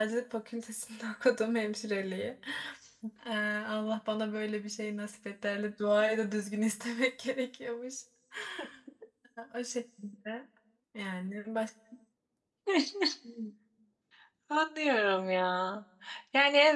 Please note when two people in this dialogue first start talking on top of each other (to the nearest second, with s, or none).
none